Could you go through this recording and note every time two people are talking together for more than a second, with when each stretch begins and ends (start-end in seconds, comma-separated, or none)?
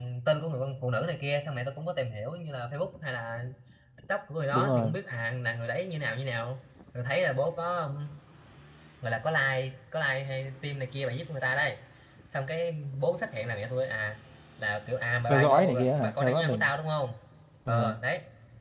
15.3-16.7